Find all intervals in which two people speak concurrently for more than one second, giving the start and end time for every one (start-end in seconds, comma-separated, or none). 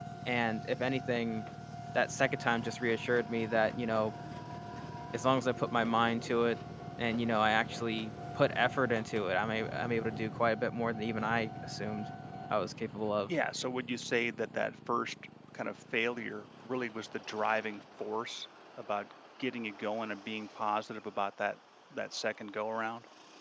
none